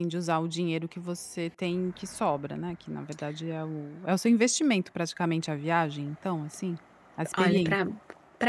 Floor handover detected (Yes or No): Yes